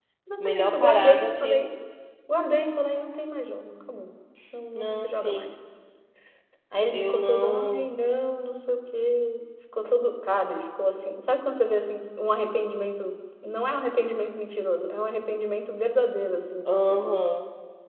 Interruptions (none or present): present